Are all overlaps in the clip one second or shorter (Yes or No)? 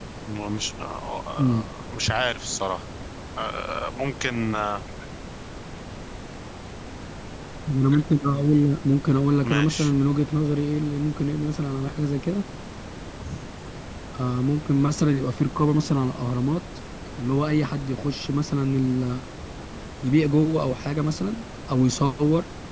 Yes